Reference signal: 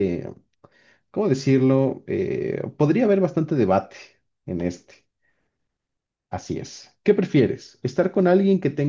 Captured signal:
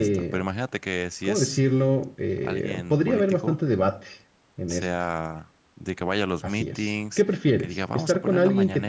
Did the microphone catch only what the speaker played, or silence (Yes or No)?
No